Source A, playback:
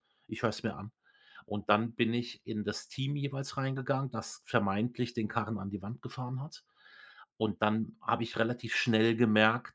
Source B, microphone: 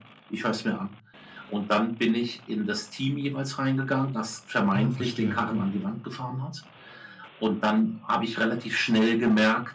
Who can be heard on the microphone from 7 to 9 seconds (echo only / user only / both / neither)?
echo only